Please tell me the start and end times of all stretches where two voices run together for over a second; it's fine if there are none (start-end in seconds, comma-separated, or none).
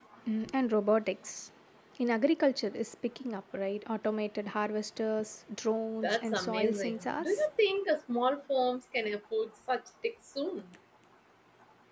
6.0-7.5